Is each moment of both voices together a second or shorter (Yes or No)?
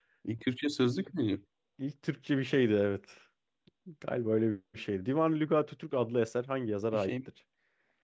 Yes